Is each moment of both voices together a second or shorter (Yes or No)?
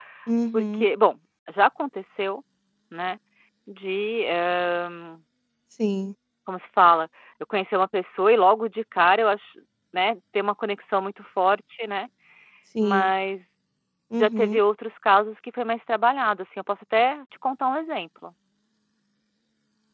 Yes